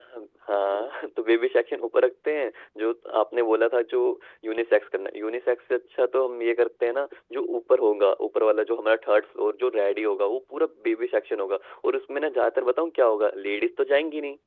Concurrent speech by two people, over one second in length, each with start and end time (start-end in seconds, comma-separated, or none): none